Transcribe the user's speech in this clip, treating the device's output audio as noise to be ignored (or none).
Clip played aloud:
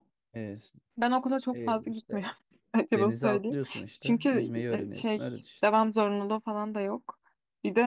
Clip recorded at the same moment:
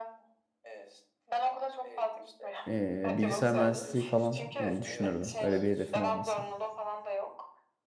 eee, bilgisayar mühendisliği falan yani düşünürdüm. Öyle bir hedefim olmasa.